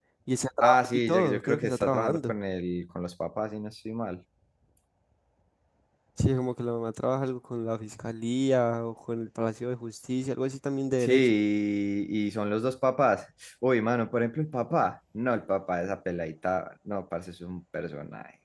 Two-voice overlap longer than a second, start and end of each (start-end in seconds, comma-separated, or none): 0.6-2.4